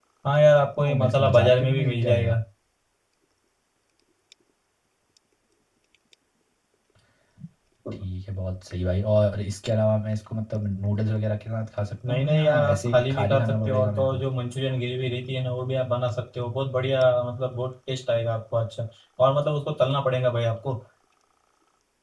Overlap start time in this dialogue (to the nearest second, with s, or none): 1 s